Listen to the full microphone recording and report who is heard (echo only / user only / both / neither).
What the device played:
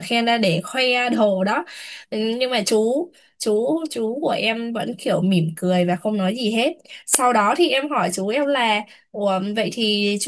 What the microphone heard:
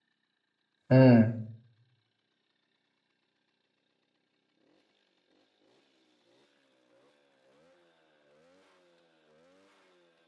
user only